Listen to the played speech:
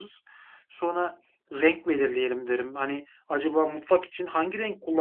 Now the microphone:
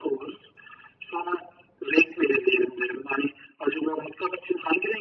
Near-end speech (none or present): none